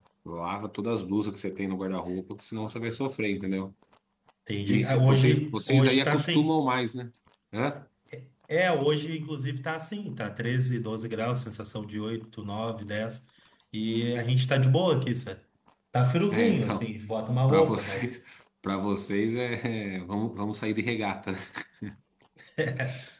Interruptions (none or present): present